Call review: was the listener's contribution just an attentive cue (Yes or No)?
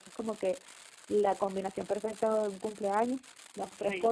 Yes